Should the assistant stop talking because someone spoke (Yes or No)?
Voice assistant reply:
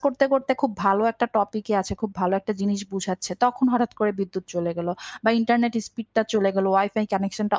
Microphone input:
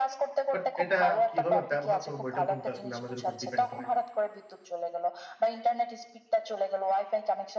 Yes